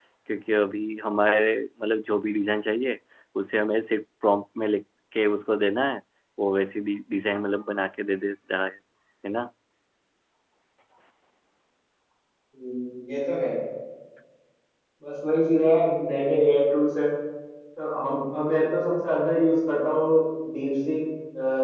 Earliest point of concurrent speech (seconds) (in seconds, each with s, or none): none